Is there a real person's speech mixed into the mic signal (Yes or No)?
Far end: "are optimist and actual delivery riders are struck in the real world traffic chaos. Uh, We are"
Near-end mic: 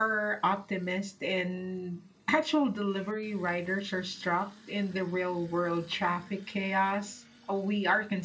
No